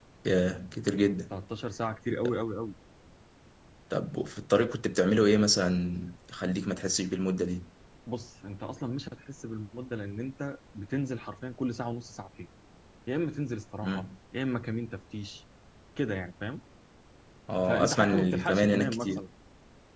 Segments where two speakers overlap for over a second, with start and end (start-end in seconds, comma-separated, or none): 17.7-19.2